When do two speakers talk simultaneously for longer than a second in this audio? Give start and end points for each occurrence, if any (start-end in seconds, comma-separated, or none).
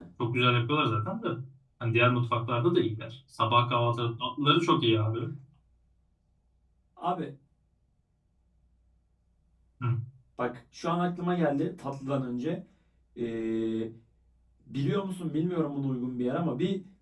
none